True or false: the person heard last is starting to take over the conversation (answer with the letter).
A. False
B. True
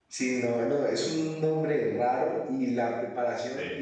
A